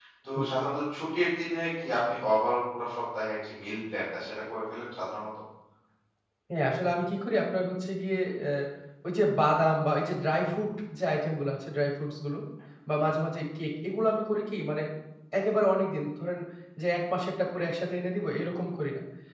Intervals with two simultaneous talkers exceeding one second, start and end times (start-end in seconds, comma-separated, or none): none